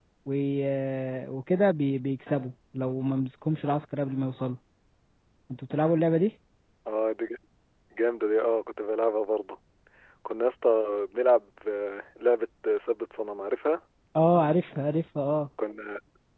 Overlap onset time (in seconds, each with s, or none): none